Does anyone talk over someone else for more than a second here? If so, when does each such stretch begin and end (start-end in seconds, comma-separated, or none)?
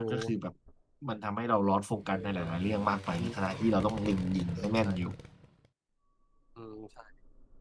none